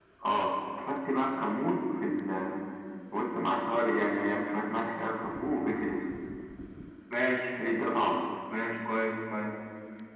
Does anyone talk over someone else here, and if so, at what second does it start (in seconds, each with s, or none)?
none